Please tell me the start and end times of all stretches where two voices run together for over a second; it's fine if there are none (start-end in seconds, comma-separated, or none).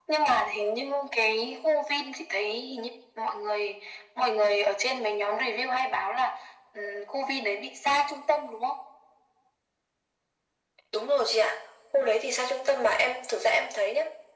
none